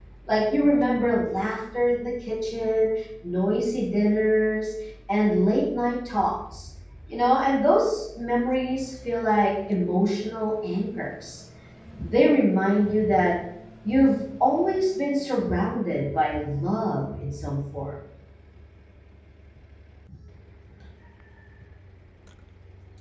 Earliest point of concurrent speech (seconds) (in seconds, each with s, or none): none